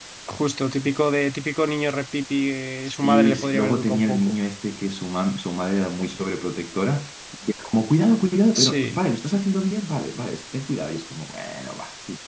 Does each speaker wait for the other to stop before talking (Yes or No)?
No